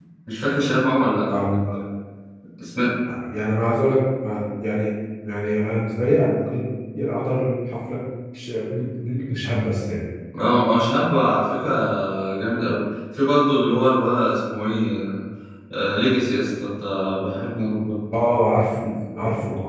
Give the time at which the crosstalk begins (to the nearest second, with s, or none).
none